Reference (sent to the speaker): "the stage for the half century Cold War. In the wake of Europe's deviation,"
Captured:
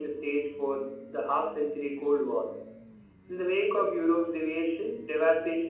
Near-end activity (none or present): none